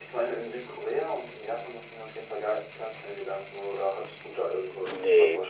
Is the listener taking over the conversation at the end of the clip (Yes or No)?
Yes